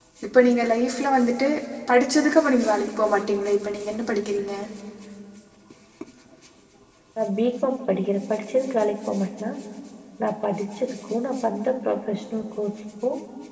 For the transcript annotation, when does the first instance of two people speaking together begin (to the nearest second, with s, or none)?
none